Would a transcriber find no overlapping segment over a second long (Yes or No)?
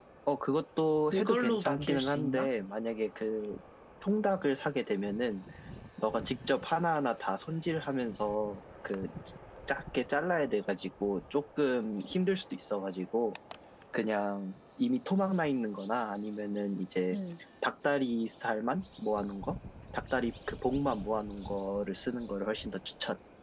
No